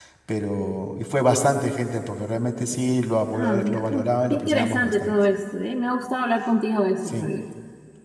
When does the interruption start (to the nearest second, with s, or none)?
3 s